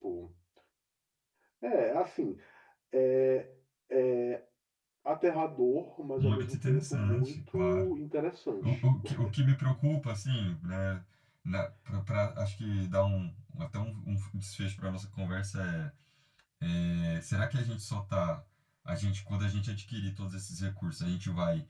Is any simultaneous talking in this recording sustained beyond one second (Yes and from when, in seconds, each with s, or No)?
Yes, from 6.2 s